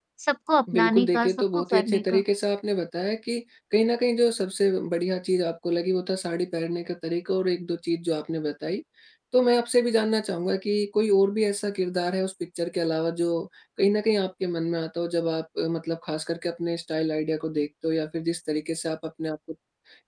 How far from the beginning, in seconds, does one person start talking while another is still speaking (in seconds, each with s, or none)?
0.7 s